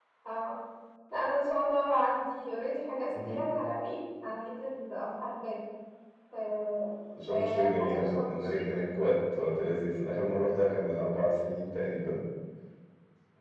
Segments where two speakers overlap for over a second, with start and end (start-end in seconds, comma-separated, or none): 7.3-8.7